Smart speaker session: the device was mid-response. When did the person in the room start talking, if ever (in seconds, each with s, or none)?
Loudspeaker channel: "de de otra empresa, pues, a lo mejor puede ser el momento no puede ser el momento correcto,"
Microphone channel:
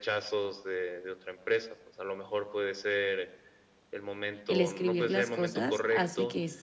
4.5 s